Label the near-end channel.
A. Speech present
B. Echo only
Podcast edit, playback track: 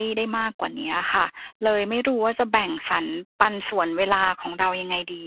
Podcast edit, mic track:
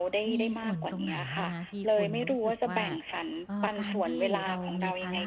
A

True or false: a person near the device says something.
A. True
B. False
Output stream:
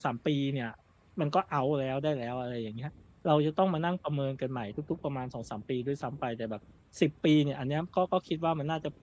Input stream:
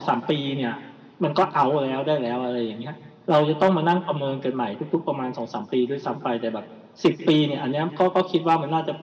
B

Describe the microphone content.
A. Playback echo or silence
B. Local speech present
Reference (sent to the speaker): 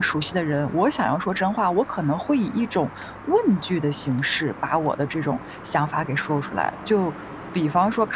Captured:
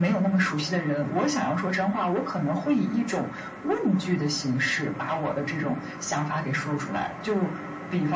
A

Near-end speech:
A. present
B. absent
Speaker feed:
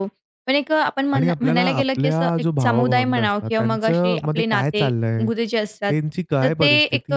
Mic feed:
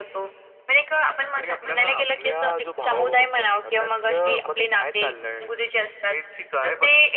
B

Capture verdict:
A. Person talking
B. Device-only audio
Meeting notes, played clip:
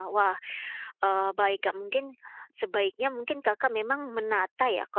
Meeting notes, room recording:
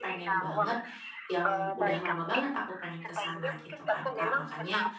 A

